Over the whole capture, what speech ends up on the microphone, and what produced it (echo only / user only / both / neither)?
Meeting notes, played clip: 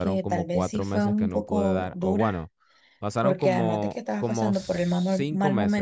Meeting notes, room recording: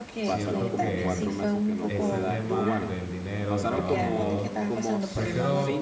both